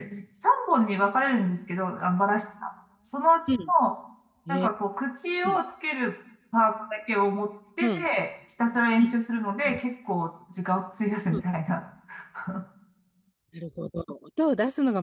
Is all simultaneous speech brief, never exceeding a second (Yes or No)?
Yes